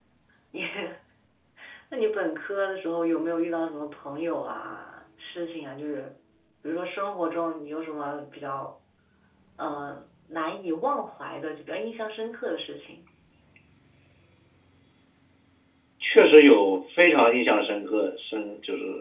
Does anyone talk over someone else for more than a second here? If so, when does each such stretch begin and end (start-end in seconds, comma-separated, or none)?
none